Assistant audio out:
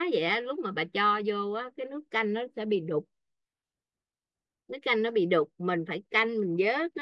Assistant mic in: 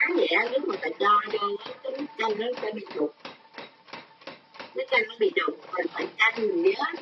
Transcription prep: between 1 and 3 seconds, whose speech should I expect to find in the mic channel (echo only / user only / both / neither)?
echo only